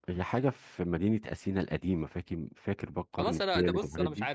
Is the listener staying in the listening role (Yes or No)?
No